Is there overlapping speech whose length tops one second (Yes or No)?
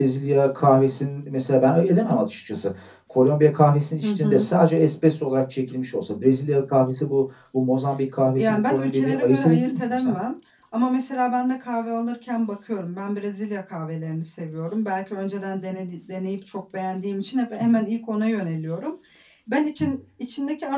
Yes